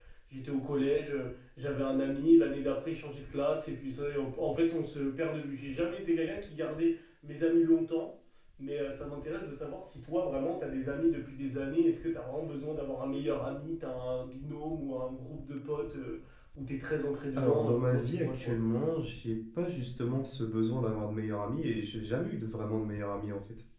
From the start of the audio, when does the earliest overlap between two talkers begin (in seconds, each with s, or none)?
17.4 s